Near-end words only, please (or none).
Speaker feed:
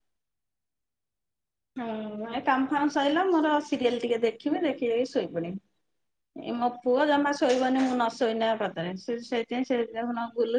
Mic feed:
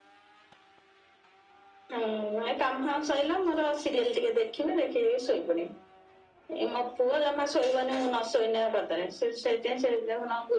none